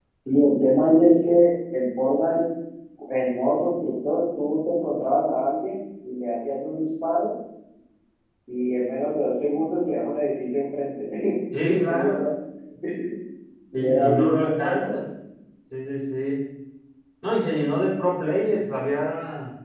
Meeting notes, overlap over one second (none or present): present